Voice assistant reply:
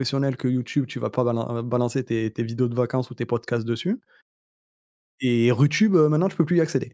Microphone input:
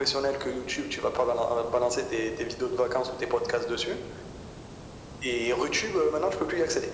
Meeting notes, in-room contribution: none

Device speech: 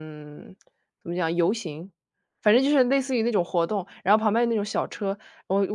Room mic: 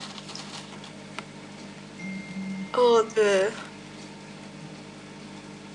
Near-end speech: present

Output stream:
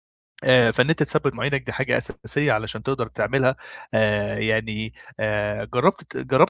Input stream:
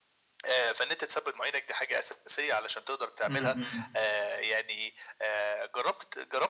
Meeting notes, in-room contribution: present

